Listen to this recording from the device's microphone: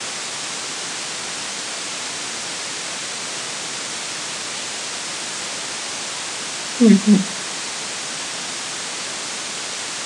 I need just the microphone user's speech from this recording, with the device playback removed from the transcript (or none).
हं, हं.